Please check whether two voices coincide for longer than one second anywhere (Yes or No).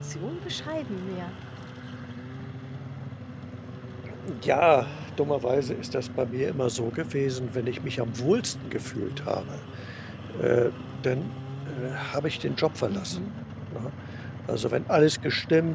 No